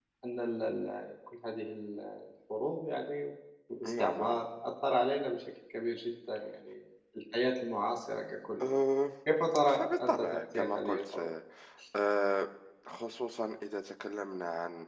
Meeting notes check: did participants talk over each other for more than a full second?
Yes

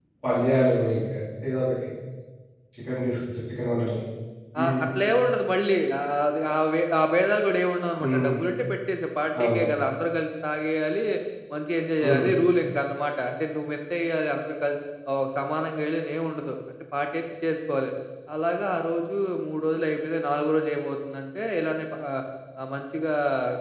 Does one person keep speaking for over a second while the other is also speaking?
No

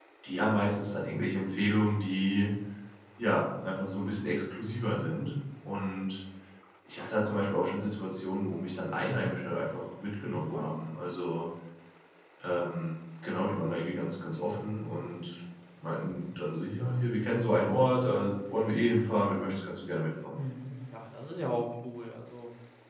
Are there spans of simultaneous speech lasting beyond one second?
No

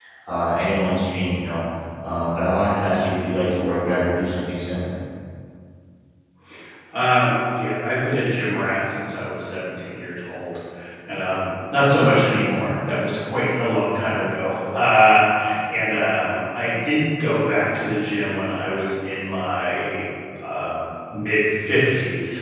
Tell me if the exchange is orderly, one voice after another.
Yes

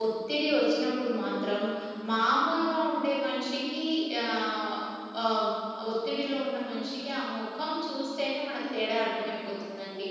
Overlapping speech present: No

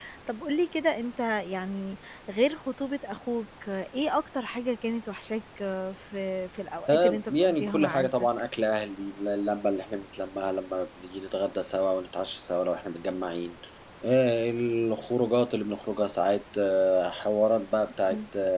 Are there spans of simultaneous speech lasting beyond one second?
Yes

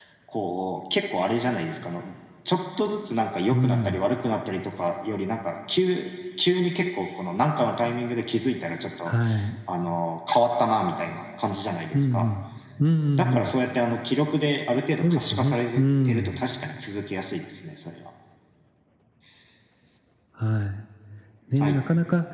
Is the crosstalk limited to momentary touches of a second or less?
No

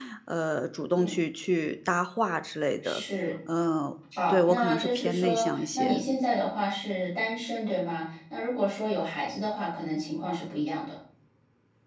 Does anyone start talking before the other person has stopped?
Yes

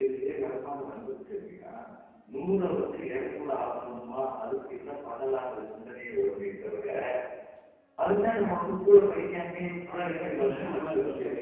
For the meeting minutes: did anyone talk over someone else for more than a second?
Yes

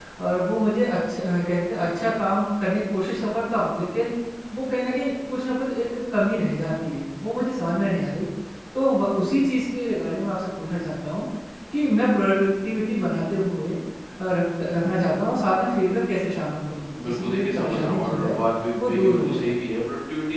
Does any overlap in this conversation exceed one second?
Yes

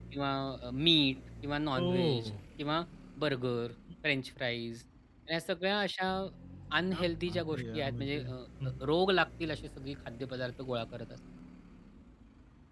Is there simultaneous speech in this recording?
Yes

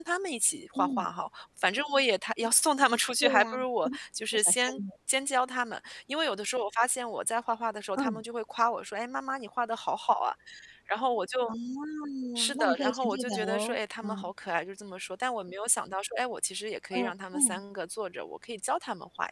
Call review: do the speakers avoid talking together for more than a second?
No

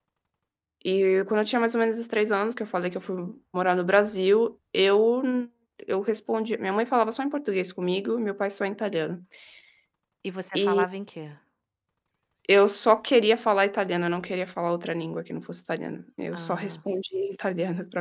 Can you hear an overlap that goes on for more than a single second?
No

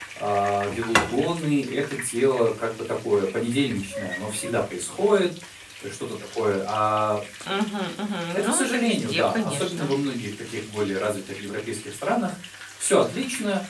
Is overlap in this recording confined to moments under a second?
No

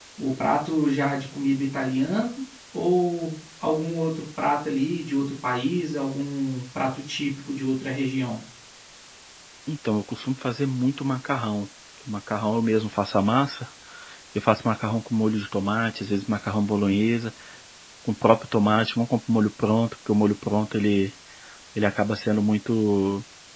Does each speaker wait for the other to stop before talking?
Yes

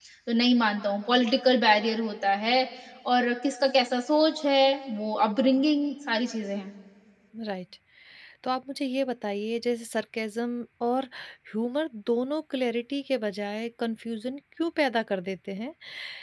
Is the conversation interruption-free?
Yes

